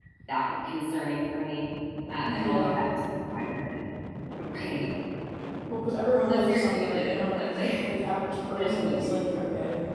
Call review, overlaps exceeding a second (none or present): present